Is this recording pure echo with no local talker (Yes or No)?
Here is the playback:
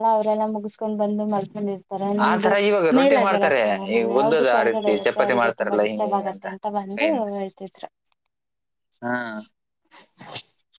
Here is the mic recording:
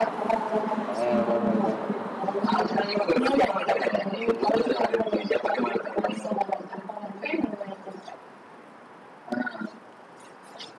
No